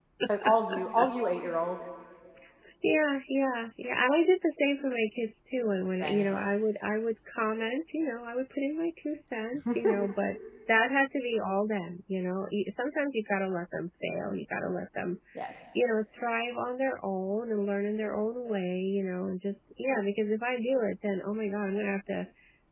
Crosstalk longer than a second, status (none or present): none